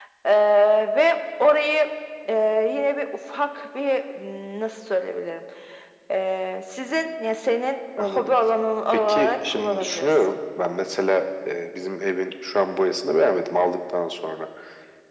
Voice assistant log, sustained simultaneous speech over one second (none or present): present